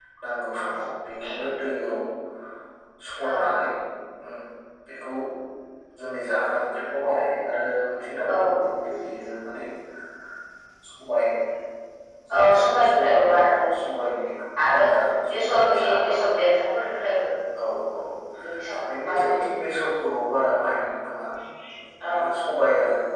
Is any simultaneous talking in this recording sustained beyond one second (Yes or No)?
Yes